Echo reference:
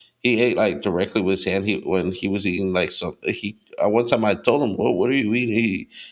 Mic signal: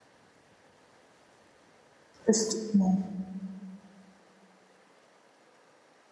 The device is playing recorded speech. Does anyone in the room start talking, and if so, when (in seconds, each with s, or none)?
2.3 s